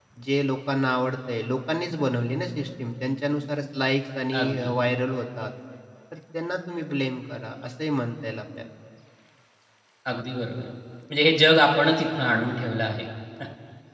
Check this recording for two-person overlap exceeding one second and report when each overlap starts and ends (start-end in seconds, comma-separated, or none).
none